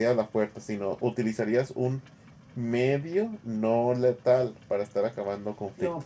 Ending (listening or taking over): taking over